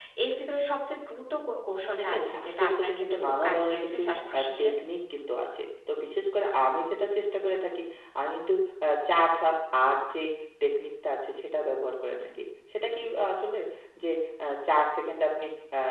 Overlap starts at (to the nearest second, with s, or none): 2 s